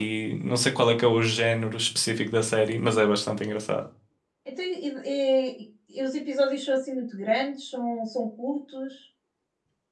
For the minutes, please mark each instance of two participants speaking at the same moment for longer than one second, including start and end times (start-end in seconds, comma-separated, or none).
none